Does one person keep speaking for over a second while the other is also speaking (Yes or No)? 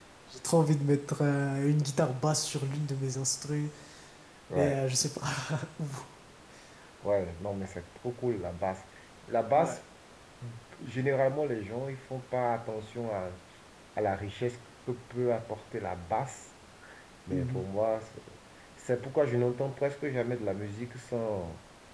No